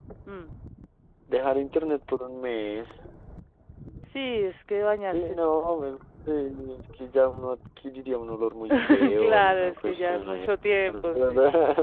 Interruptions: present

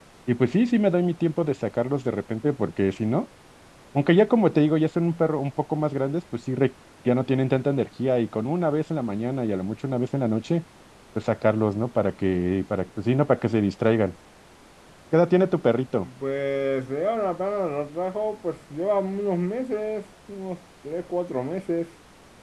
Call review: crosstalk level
none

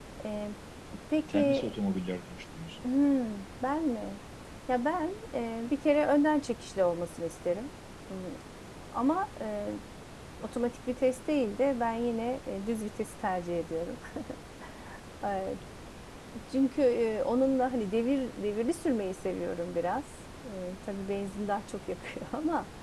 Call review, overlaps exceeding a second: none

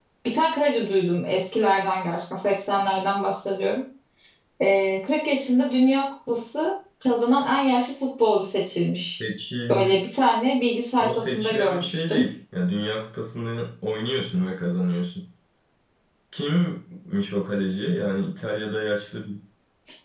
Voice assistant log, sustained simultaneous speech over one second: present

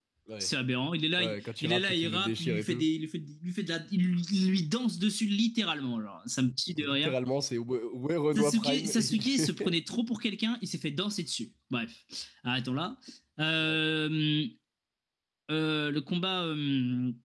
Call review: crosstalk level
present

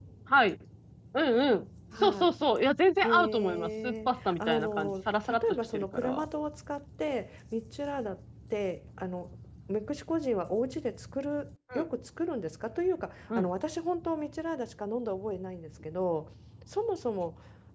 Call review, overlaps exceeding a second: present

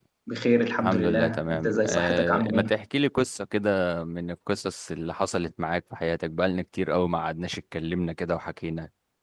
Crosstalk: present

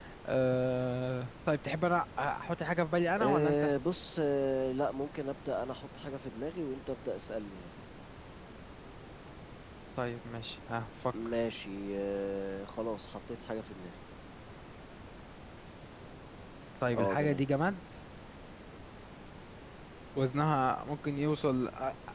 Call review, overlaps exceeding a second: none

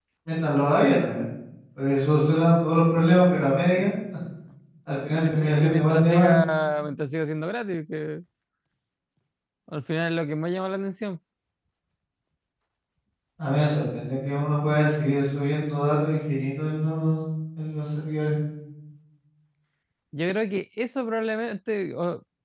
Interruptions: present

